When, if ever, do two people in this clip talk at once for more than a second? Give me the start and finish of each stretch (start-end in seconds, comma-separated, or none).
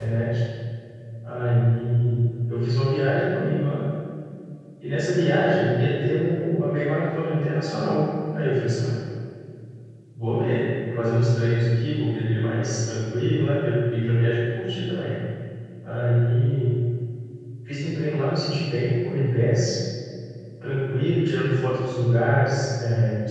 none